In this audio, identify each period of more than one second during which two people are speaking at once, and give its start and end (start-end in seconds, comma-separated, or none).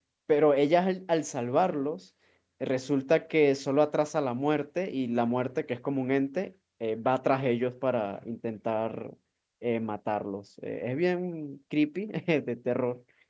none